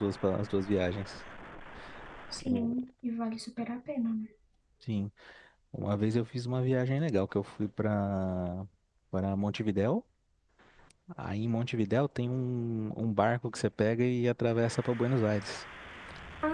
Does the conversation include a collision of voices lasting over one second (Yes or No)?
No